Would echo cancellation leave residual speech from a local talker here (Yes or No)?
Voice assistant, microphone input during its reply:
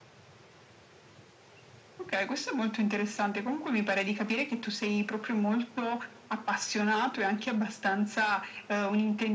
No